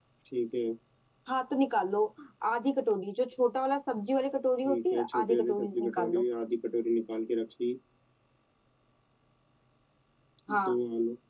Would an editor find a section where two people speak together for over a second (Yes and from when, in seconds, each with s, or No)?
Yes, from 4.6 s